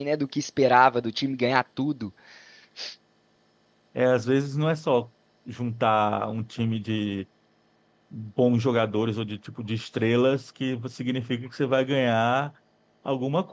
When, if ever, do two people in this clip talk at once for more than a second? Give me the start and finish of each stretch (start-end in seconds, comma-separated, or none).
none